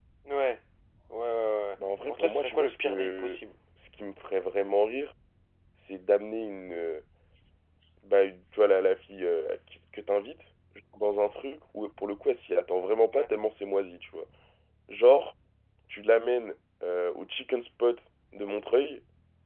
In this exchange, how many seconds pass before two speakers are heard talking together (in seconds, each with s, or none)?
2.1 s